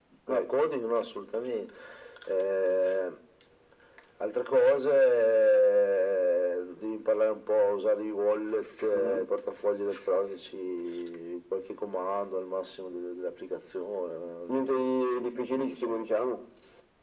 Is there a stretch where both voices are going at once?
Yes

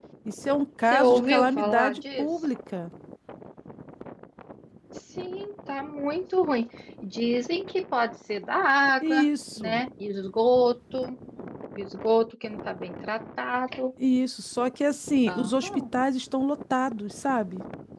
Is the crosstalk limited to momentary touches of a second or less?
No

